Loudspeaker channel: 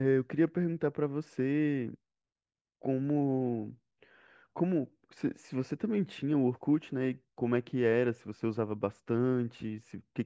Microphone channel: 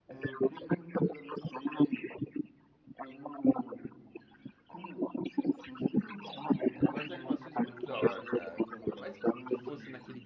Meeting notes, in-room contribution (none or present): present